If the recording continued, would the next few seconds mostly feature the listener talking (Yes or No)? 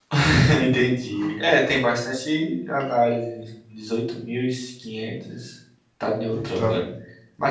No